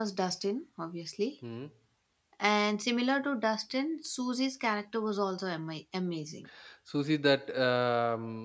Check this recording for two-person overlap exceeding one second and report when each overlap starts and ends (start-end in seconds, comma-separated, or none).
none